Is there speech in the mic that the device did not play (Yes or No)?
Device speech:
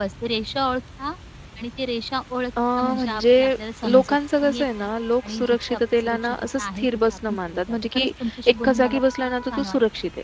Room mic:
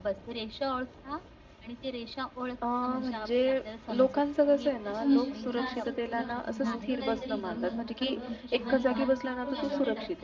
Yes